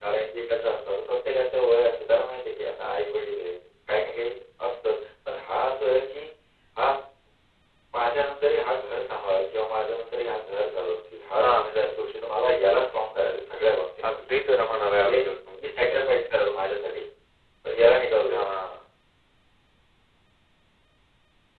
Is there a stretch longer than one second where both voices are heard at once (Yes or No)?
No